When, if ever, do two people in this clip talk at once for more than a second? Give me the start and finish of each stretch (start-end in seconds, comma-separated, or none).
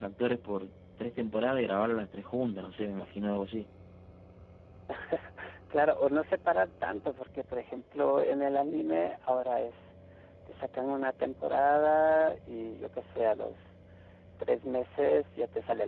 none